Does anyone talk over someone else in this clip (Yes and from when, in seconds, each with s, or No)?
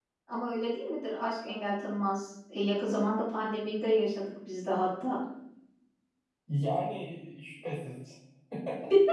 No